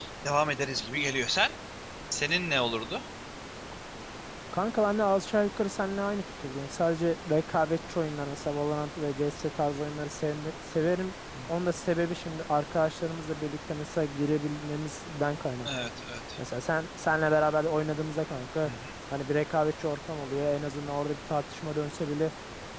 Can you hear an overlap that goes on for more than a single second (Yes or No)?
No